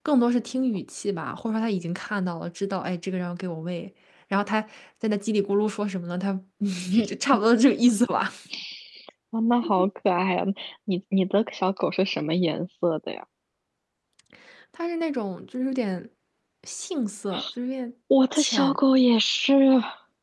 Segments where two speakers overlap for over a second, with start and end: none

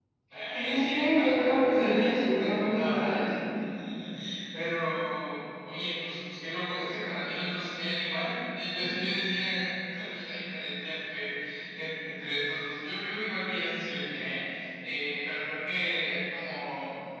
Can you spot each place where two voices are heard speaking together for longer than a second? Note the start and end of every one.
0.5-3.2

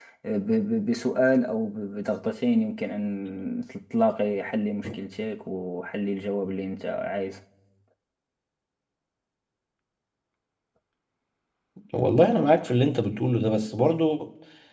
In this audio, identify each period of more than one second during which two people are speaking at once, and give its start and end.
none

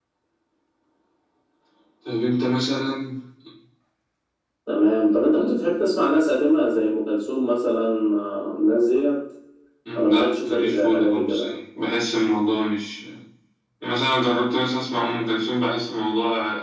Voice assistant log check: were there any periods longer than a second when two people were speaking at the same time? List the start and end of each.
9.9-11.6

